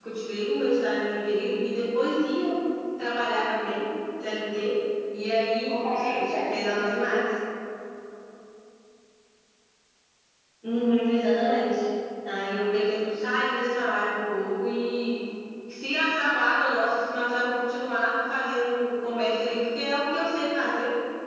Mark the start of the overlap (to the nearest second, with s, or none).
6 s